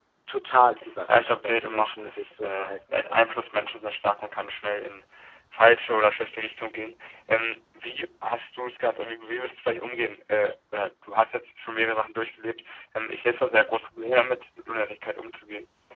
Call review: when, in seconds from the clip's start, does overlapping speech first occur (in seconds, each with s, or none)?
1.1 s